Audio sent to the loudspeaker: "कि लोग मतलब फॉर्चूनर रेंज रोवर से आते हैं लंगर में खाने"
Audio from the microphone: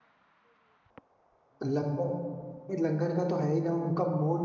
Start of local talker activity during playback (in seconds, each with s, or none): 1.6 s